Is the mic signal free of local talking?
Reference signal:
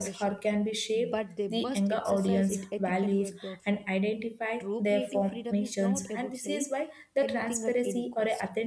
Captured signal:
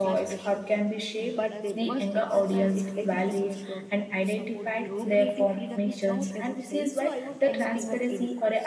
No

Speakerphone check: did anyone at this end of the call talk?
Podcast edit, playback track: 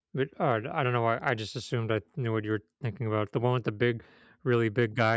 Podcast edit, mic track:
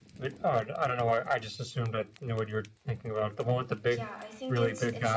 Yes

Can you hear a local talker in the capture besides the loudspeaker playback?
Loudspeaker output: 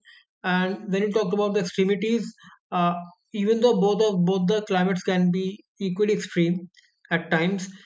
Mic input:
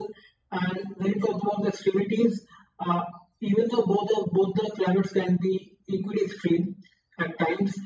No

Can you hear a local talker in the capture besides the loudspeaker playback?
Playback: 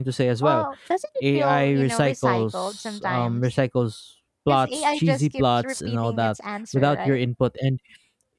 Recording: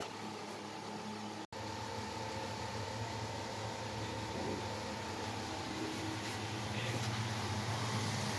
No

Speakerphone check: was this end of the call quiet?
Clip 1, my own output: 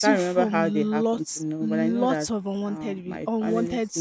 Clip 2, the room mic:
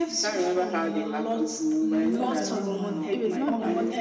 No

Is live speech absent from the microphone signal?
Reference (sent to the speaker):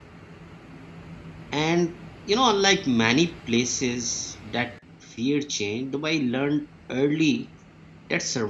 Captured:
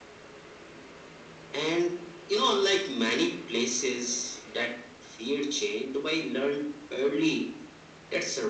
Yes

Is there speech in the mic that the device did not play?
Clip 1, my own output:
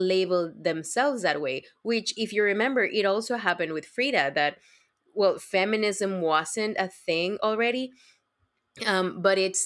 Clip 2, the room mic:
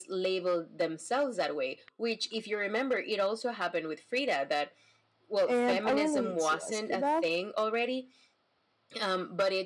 Yes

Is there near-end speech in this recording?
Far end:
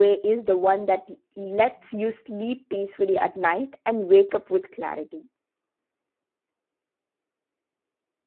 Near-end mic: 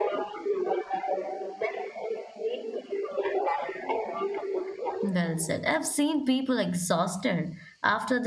Yes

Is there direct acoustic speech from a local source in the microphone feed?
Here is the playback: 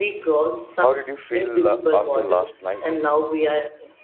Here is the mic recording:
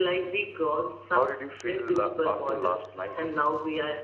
No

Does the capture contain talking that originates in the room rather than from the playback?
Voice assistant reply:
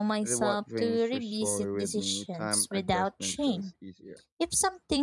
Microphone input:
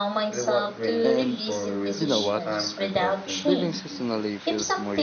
Yes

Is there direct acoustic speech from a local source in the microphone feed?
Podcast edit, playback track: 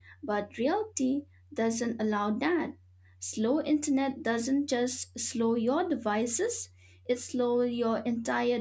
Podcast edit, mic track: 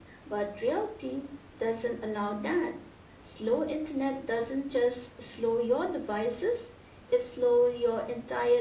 No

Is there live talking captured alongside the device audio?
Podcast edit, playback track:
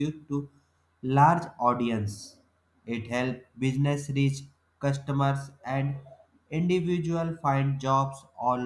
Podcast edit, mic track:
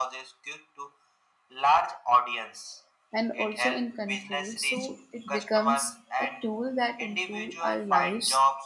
Yes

